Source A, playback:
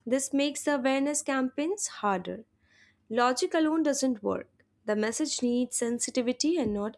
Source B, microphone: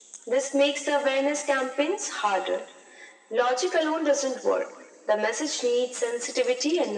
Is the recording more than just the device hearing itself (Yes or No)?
No